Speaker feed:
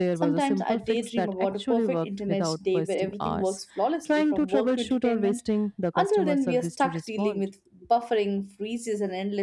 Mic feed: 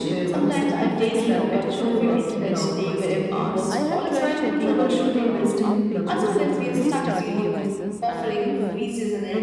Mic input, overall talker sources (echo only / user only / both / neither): both